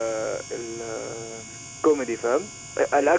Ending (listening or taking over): listening